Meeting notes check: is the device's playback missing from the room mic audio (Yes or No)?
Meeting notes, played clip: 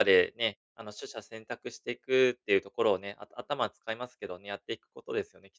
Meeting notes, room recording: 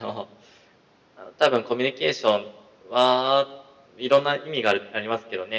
Yes